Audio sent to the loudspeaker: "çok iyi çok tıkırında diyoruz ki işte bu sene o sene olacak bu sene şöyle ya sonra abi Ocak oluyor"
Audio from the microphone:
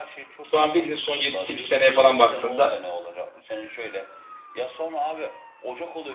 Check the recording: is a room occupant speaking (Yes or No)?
Yes